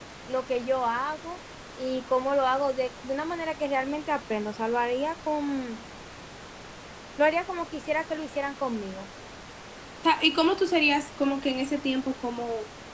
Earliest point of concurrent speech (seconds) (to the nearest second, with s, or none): none